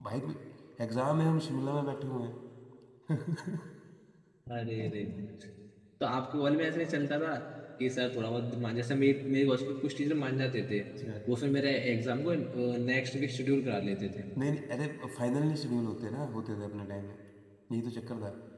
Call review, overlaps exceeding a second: none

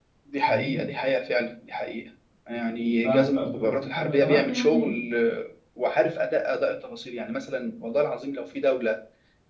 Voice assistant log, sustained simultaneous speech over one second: present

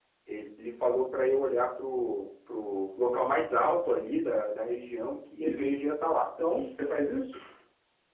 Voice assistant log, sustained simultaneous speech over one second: none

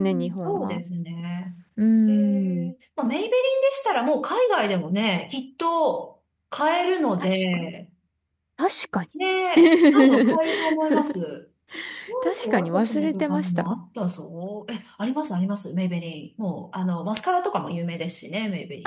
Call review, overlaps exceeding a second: present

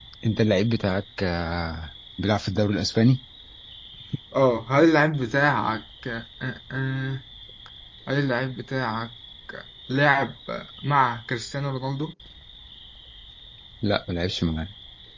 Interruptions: none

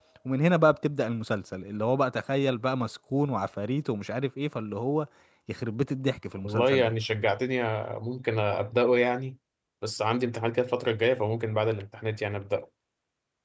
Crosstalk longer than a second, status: none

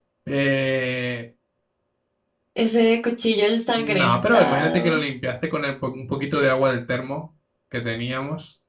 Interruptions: present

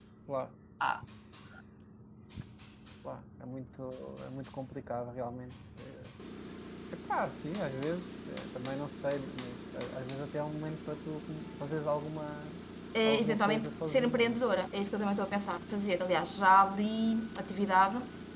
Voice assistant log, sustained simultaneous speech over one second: present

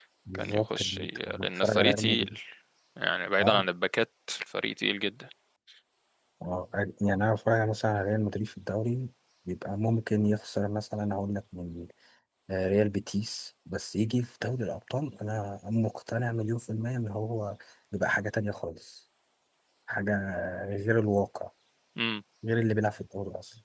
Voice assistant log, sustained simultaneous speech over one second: present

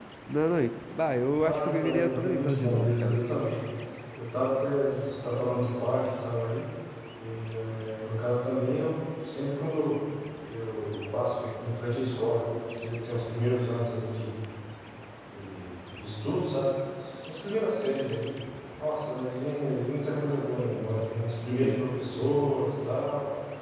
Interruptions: present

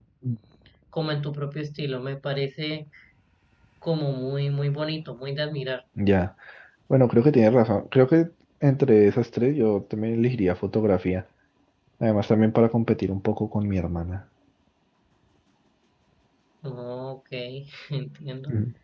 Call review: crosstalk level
none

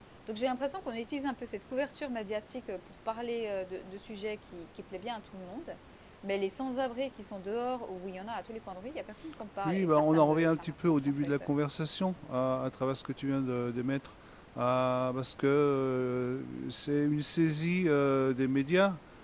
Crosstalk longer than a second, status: present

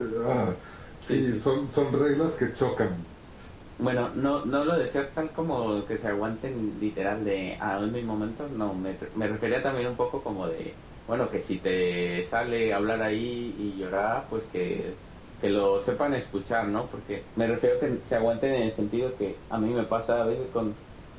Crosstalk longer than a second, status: none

